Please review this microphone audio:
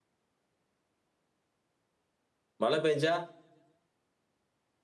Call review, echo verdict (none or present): none